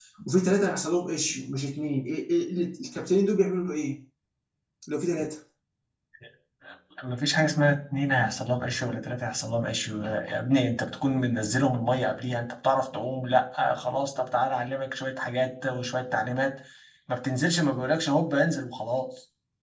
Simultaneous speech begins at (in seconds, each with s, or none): none